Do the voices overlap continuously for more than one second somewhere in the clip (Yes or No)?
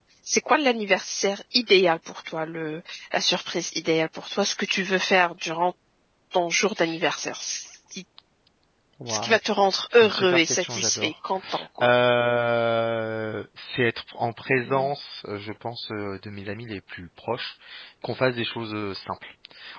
Yes